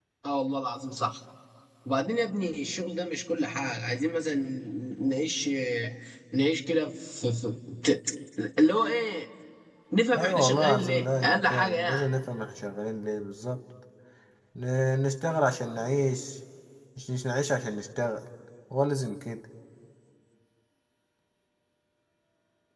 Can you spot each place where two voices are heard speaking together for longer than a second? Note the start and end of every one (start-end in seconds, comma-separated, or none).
10.2-12.1